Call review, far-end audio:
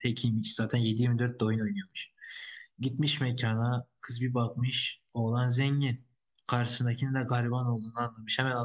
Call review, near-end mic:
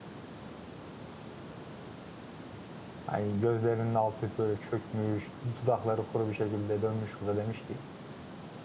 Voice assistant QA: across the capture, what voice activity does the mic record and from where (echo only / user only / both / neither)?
user only